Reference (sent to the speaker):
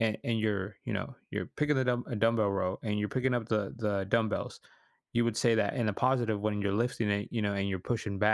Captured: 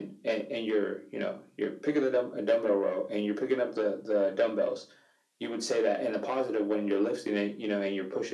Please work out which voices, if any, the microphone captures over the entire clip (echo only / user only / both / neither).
echo only